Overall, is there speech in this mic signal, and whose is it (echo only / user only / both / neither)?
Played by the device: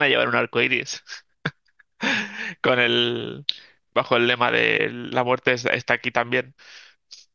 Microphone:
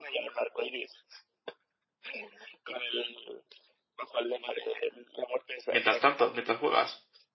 both